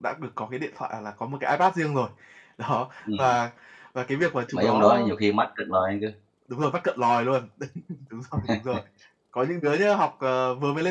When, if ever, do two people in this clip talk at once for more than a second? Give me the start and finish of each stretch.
none

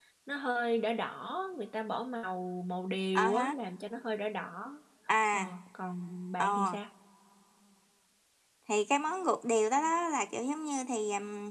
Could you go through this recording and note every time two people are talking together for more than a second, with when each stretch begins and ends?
none

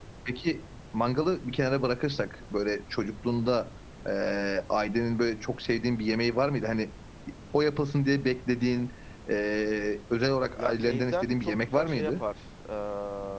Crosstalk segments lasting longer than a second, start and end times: 10.6-12.1

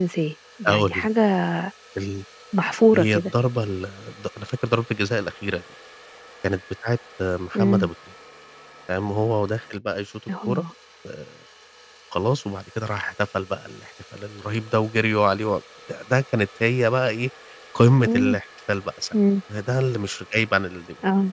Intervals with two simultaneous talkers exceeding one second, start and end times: none

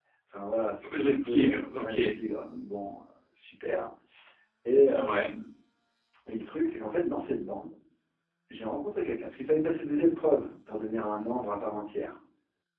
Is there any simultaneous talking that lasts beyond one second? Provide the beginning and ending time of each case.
0.8-2.1

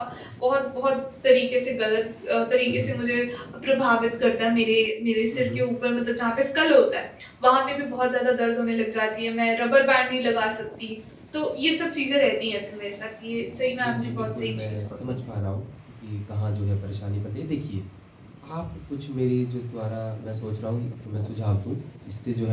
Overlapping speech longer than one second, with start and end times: 13.8-15.2

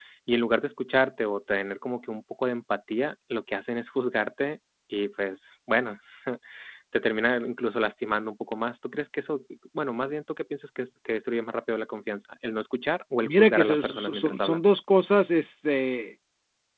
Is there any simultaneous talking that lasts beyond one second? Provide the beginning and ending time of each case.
13.2-14.6

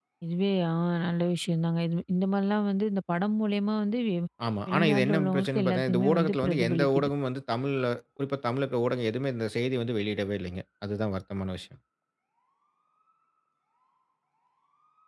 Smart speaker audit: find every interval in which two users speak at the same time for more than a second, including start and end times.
4.7-7.1

